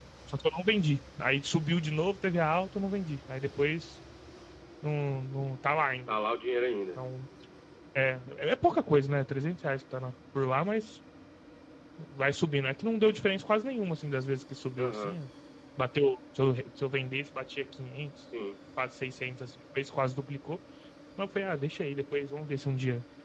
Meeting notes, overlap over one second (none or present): none